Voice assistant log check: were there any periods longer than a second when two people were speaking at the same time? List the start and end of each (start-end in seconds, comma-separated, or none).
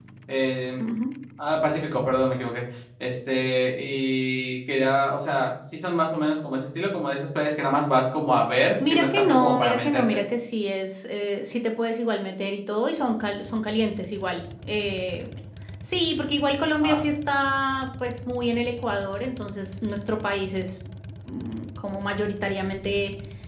8.8-10.2